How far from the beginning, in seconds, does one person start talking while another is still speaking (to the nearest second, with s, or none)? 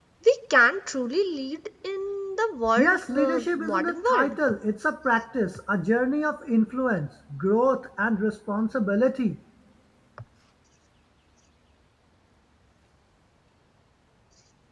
3 s